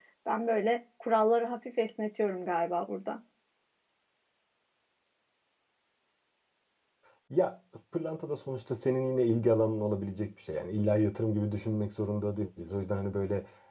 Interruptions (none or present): none